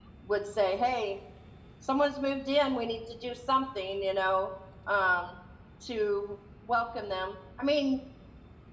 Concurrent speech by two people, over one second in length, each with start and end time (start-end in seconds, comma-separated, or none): none